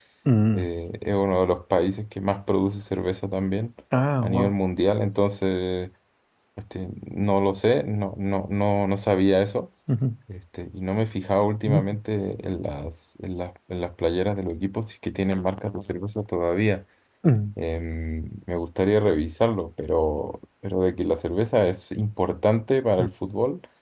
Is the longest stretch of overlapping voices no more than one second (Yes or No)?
Yes